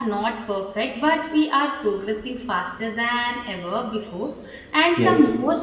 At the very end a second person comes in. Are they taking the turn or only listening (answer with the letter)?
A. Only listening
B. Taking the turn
A